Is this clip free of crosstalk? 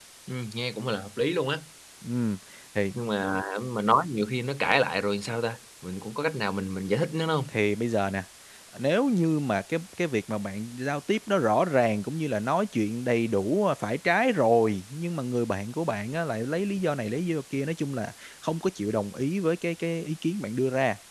Yes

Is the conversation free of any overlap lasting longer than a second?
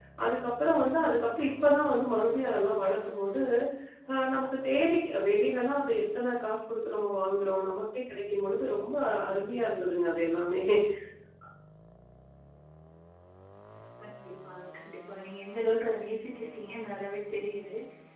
Yes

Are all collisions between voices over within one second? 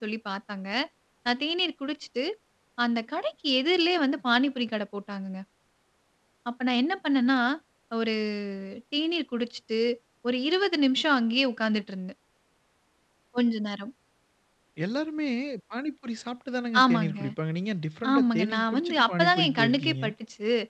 No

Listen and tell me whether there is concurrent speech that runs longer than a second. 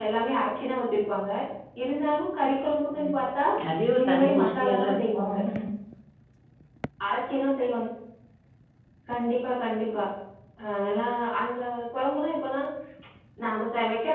Yes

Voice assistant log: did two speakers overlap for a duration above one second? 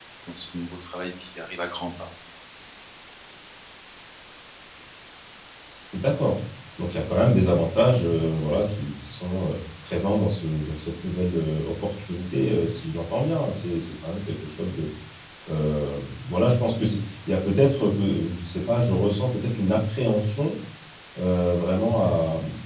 No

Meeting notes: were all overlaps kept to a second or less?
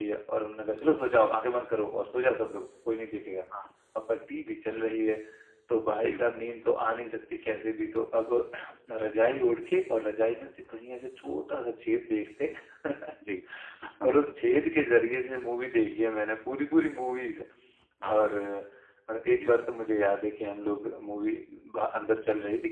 Yes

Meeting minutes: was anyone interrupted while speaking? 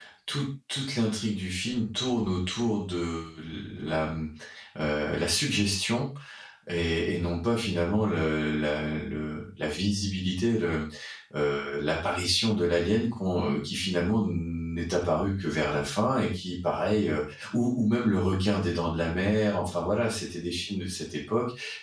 No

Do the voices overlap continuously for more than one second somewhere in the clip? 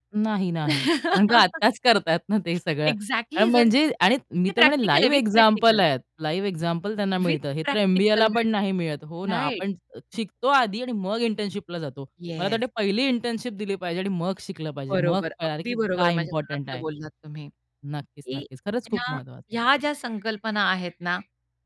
Yes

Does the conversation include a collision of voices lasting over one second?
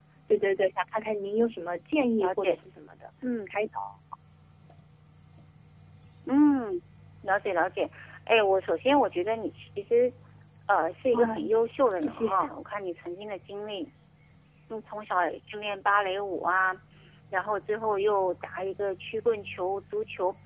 No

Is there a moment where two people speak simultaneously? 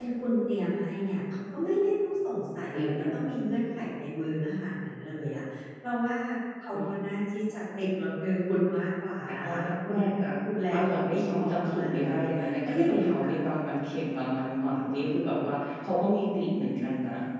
Yes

